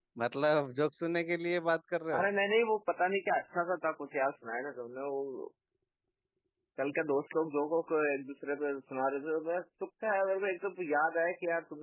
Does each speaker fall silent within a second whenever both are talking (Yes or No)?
Yes